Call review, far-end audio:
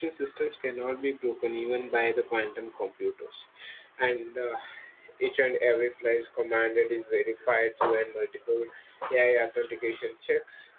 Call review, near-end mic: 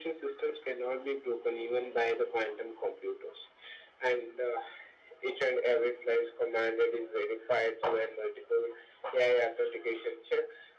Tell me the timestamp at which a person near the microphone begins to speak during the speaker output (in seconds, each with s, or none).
none